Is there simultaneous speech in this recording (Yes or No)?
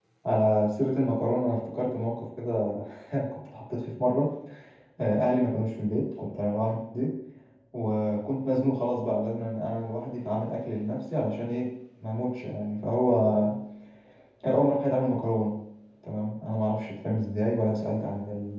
No